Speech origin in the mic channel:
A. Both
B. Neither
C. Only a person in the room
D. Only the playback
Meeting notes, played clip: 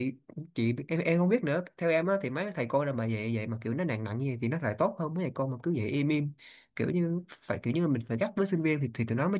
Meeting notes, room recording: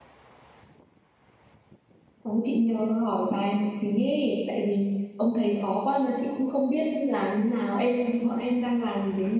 C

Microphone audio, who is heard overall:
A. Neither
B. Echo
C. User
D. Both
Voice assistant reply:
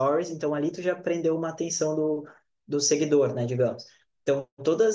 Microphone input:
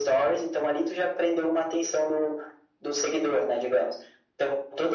B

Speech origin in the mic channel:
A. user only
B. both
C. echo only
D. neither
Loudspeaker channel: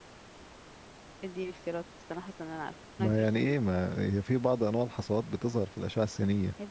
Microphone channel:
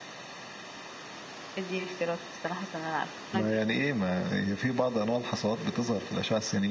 C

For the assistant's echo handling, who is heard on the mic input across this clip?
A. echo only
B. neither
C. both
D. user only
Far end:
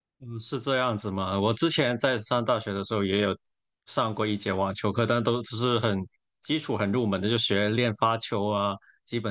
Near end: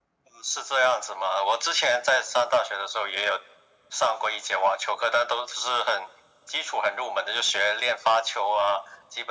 A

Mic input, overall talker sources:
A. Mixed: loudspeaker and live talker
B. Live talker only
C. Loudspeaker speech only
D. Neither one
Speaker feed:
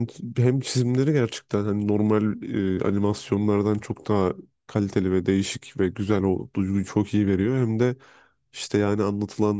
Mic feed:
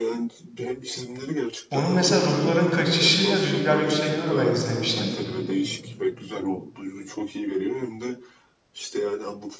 A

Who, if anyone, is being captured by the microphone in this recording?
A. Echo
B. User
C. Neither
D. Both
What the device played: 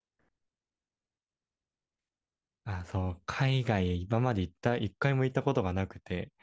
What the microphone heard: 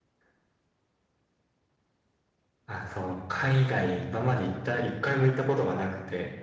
A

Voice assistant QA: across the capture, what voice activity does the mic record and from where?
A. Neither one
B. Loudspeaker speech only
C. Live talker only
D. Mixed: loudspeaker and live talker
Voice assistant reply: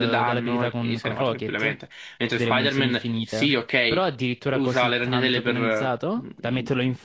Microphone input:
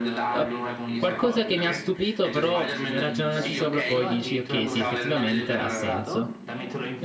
D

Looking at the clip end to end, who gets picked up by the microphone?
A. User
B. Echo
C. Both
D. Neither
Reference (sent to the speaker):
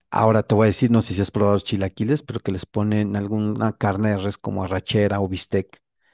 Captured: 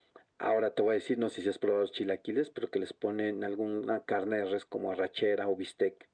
B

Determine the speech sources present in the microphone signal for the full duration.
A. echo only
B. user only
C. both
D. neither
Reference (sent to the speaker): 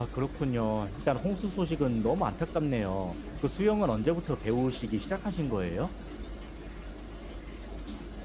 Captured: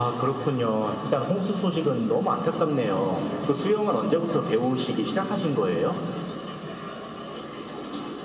A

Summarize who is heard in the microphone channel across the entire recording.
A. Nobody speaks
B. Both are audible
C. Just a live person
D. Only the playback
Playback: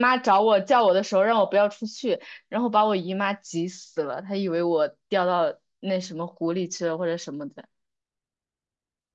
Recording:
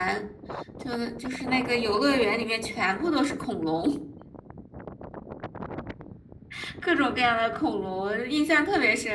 C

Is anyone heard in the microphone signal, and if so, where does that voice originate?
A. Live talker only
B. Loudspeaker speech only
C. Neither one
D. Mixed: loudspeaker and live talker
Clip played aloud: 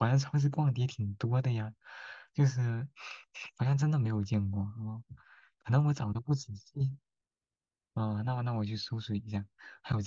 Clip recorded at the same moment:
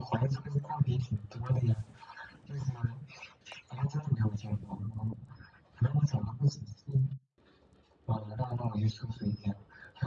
B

